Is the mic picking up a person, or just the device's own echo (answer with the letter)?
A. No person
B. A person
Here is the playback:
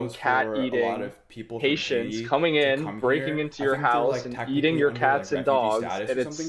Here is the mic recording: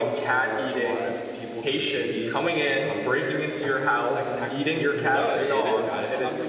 B